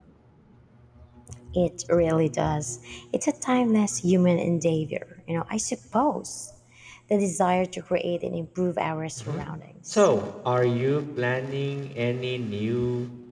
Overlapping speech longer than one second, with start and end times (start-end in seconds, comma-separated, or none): none